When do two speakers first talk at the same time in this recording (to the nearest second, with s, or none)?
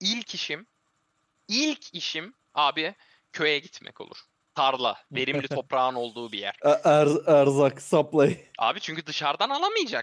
none